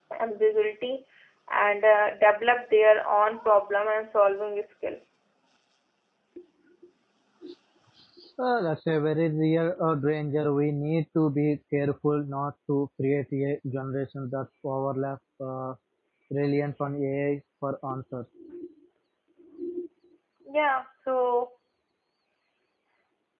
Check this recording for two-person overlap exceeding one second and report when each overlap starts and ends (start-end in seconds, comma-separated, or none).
none